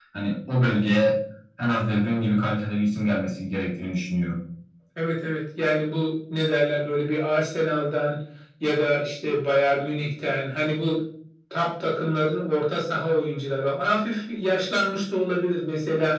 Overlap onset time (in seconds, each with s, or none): none